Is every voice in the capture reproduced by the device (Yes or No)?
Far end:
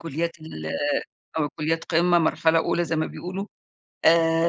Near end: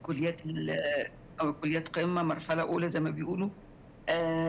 Yes